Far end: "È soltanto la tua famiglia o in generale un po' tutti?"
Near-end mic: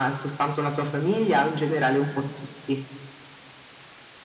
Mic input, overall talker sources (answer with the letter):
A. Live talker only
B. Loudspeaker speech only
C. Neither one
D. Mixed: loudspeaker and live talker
B